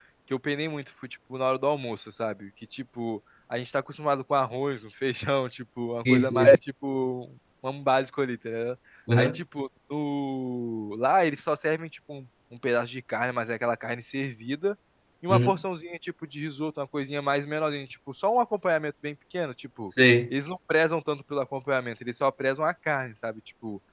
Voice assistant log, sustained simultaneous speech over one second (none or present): none